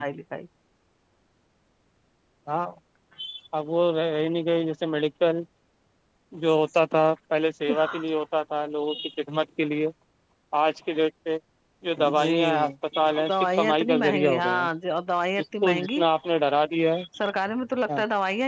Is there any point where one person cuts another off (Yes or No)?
Yes